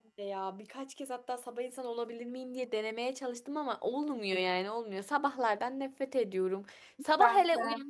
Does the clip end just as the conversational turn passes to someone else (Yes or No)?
No